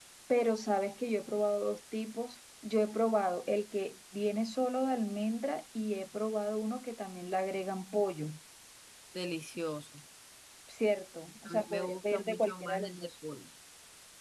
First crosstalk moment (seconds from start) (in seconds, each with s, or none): 11.4 s